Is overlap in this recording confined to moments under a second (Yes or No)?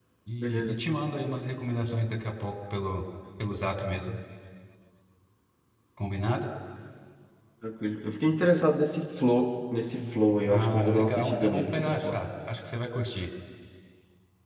No